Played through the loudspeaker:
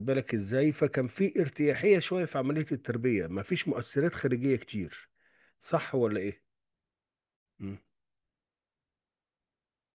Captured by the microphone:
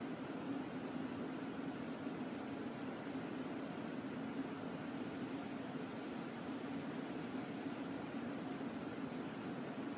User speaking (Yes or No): No